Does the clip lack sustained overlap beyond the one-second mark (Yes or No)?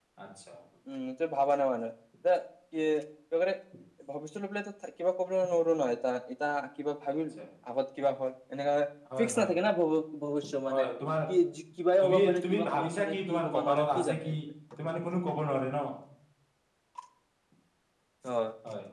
No